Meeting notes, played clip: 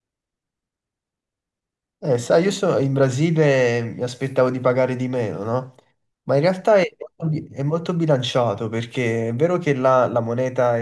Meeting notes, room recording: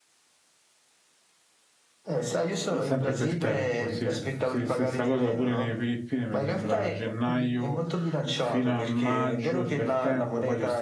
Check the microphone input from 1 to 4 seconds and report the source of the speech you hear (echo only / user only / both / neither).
both